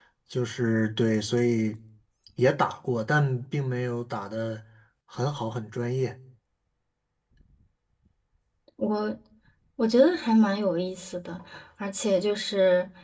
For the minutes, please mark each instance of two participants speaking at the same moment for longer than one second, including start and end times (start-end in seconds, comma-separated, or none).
none